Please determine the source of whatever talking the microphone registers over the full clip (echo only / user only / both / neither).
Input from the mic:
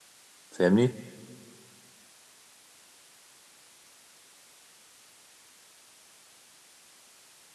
user only